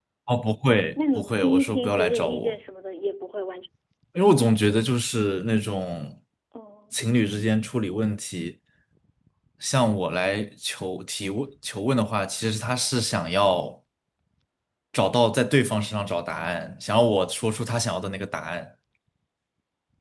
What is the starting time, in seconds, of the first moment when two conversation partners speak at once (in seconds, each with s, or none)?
1.0 s